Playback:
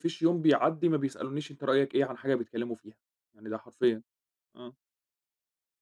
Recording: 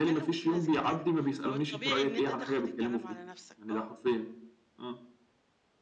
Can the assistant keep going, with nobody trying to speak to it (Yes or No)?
No